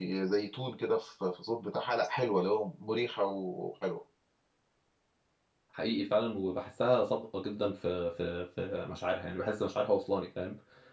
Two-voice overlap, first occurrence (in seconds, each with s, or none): none